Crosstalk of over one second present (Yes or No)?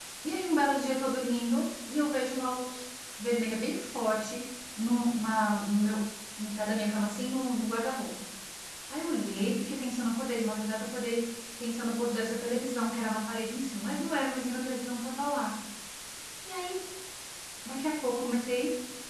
No